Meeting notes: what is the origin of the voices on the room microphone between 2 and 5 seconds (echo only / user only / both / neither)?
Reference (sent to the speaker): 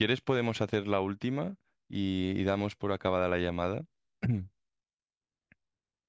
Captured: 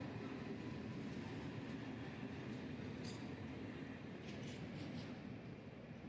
neither